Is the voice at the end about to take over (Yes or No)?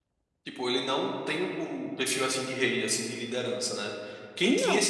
No